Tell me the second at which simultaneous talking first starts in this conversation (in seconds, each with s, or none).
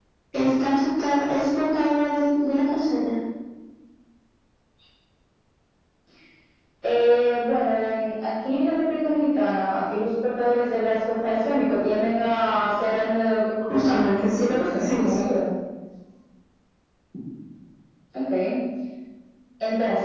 13.7 s